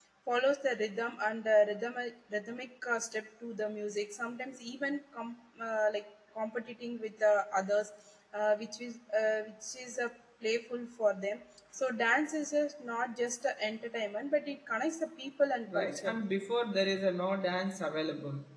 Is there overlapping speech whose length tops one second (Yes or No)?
No